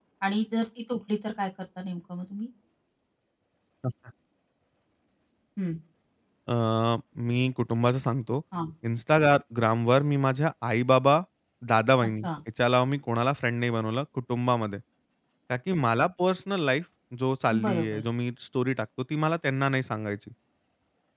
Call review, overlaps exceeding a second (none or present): none